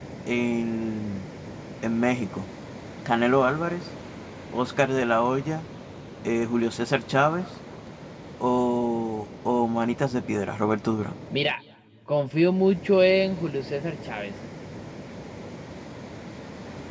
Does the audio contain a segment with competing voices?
No

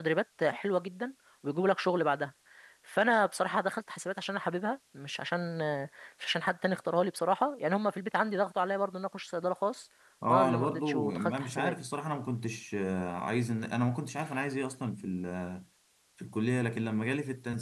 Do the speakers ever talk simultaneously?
Yes, from 10.3 s

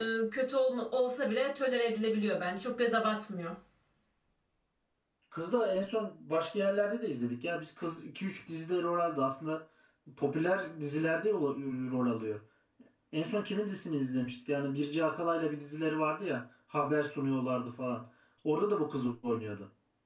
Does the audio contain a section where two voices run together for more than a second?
No

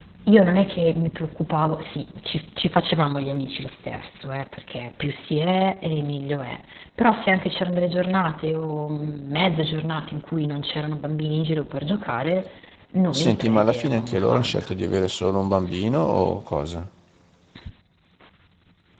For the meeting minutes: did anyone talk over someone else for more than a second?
Yes, from 13.1 s

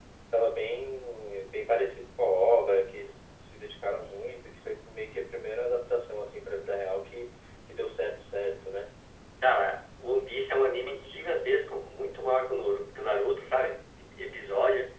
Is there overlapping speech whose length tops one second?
No

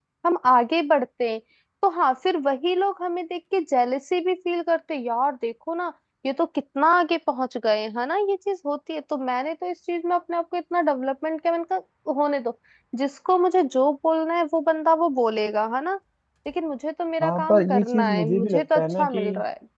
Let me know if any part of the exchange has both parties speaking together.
Yes, from 17.2 s

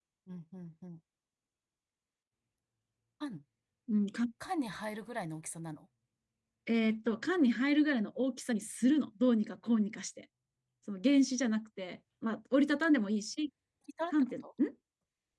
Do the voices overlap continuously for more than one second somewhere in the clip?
No

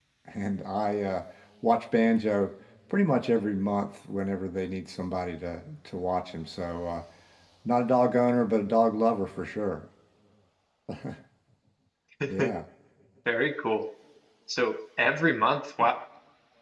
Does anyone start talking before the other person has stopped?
No

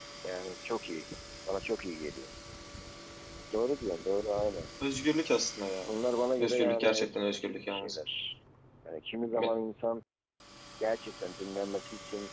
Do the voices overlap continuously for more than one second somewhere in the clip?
Yes, from 6.4 s

